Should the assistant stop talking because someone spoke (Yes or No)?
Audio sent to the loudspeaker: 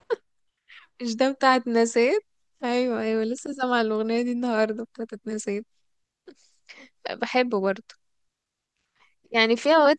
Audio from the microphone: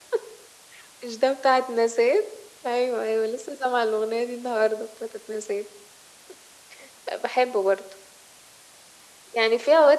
No